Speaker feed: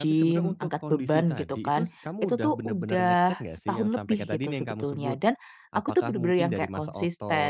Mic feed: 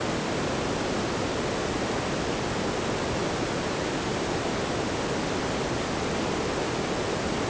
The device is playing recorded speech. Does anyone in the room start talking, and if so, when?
none

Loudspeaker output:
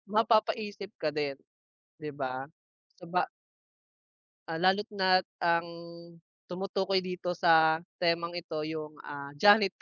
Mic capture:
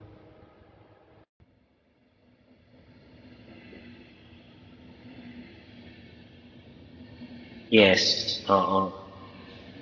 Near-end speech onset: 7.7 s

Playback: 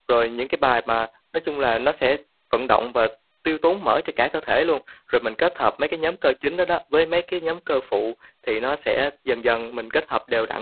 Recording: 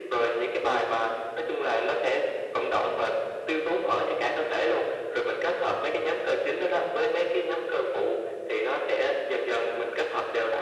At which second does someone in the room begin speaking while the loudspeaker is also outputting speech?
none

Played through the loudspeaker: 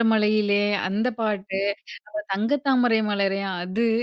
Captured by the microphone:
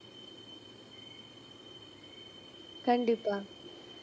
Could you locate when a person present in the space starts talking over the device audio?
2.9 s

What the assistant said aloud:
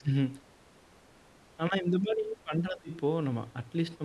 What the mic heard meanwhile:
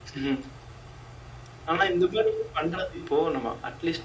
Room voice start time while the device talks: none

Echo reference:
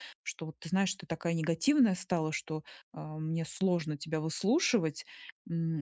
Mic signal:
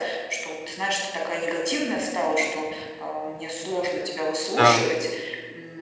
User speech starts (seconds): 4.5 s

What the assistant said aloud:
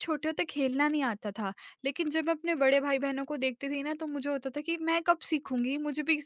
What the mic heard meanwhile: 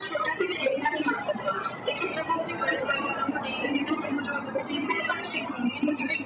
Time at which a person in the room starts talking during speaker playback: none

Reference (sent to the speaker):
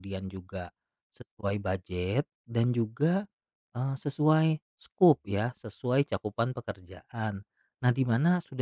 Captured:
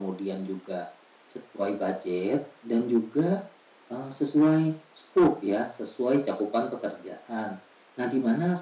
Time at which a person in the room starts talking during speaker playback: none

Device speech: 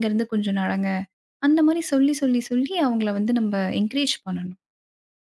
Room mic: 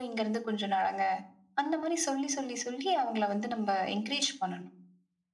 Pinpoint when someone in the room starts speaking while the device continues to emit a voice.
none

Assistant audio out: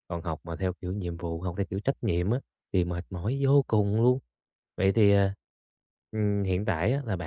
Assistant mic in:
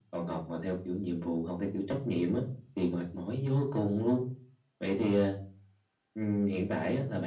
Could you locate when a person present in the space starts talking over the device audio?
none

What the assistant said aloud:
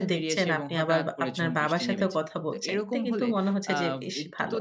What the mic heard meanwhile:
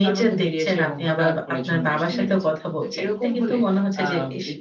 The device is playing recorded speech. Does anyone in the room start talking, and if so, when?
none

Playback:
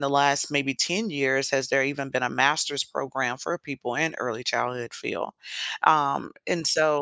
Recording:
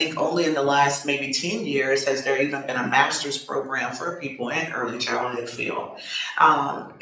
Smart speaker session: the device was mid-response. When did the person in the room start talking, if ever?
none

